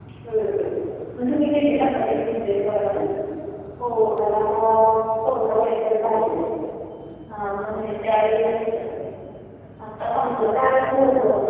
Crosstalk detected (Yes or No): Yes